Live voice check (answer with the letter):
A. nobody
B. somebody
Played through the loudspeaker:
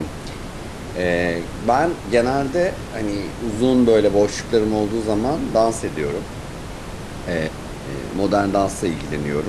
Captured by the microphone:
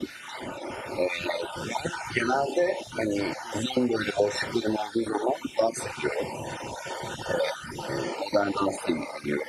A